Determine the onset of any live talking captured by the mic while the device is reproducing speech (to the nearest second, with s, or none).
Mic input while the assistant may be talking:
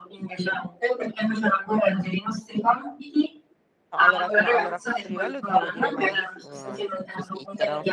4 s